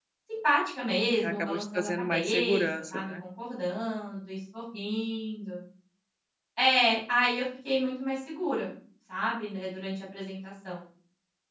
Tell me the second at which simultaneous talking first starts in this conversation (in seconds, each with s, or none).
1.2 s